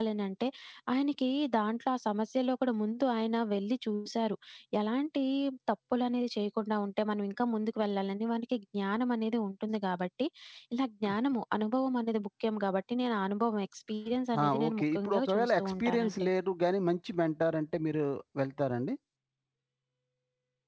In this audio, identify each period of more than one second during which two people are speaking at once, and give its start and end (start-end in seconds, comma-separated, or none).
14.4-16.3